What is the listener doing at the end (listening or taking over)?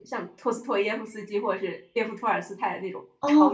taking over